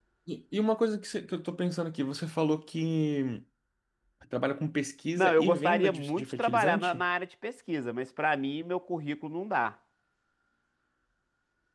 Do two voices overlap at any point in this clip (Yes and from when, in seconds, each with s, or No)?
Yes, from 5.2 s